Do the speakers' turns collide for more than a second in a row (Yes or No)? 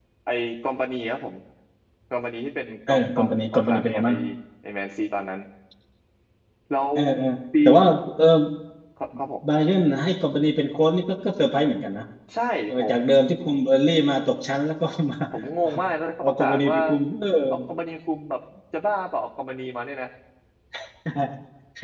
Yes